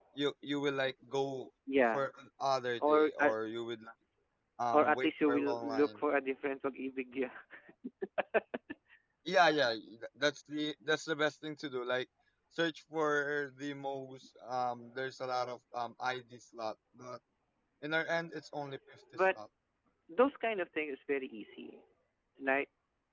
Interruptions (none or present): present